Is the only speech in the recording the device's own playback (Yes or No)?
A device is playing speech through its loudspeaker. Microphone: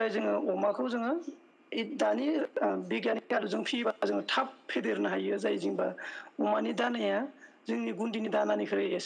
Yes